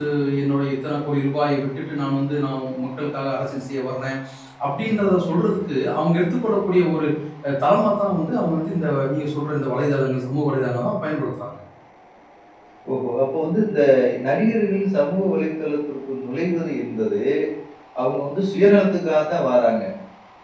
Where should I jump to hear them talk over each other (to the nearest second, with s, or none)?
none